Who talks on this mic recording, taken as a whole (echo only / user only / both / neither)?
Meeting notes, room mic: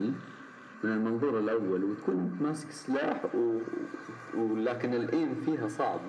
echo only